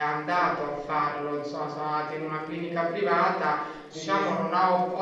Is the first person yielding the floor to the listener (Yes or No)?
No